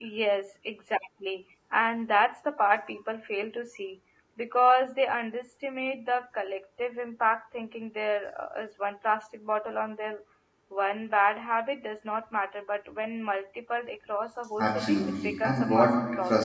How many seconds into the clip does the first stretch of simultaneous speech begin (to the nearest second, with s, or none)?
15 s